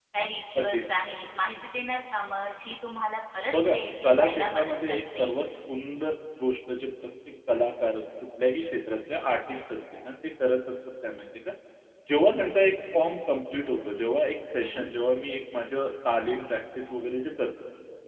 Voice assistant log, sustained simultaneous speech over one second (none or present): present